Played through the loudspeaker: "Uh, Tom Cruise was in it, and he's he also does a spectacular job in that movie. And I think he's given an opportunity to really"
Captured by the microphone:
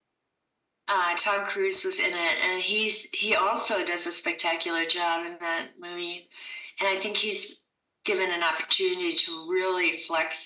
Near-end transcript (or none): none